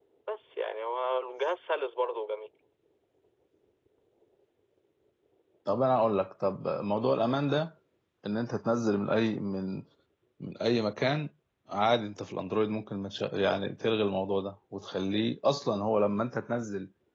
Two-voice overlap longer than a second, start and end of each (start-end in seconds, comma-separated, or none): none